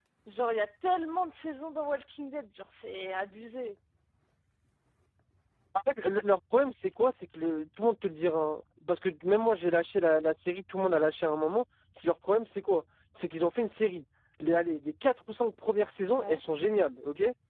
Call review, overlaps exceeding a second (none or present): none